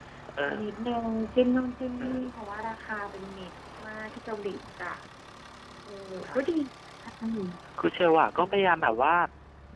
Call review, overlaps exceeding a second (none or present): none